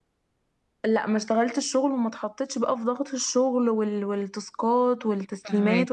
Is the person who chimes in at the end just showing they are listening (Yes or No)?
Yes